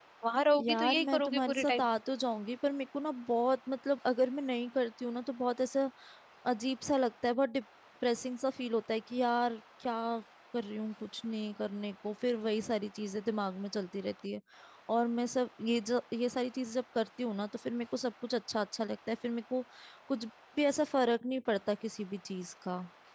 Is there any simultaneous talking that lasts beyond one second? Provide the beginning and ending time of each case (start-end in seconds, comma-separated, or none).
0.6-1.9